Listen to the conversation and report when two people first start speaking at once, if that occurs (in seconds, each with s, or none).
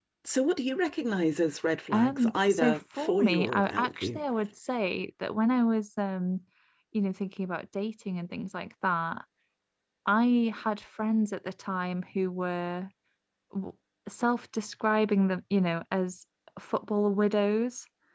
1.9 s